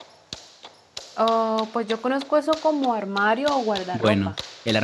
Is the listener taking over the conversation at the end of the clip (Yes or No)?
Yes